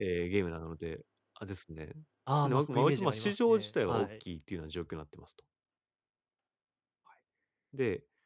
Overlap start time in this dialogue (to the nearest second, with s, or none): 2 s